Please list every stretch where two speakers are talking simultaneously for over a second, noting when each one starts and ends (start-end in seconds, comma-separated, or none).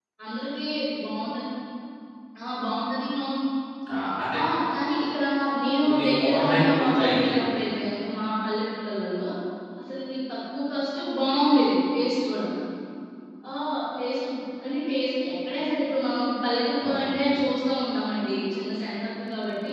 5.8-7.3